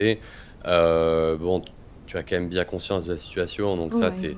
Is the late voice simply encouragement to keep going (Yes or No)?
Yes